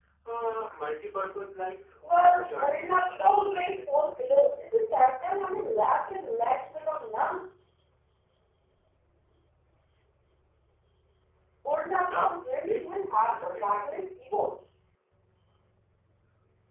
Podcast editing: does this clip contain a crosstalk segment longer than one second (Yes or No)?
Yes